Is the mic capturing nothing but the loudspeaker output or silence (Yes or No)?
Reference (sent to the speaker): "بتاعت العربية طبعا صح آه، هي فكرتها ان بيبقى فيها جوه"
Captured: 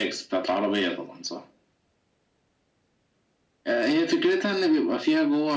Yes